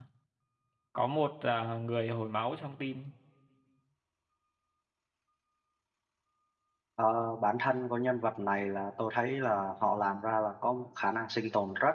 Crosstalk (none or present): none